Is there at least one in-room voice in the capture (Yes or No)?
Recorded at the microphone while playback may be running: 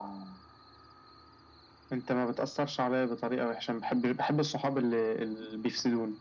No